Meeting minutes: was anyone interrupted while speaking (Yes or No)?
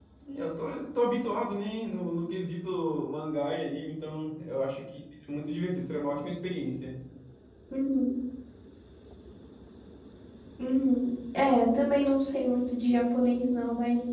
No